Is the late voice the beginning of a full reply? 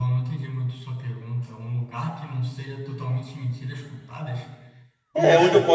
Yes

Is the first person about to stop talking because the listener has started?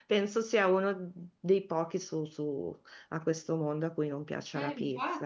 No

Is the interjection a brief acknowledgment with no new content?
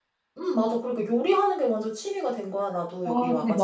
No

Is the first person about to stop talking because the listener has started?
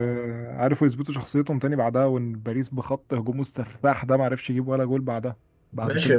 Yes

